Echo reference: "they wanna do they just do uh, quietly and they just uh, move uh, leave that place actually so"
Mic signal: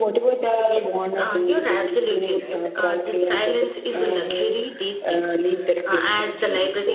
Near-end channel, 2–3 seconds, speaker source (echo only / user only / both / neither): both